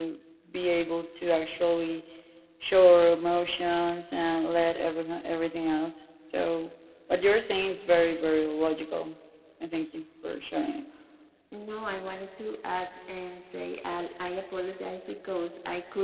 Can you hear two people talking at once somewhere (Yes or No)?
No